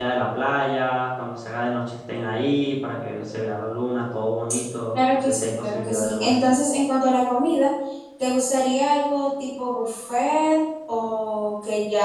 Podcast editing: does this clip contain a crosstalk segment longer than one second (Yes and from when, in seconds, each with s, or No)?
Yes, from 4.9 s